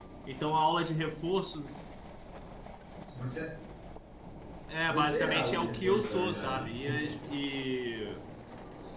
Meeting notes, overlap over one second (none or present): present